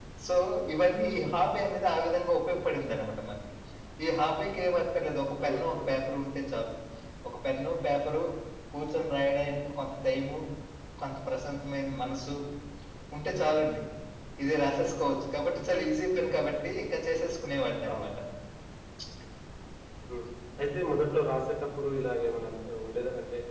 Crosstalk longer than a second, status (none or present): none